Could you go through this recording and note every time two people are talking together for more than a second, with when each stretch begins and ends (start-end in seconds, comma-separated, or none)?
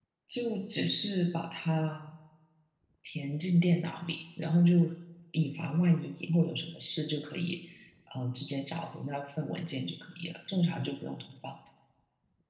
none